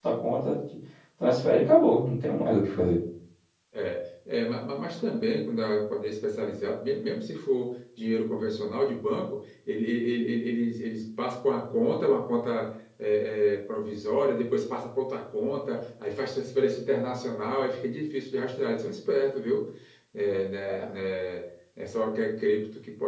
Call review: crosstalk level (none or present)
none